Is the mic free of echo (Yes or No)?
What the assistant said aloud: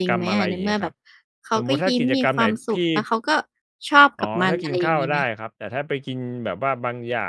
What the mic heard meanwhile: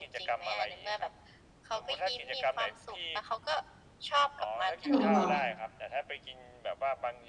No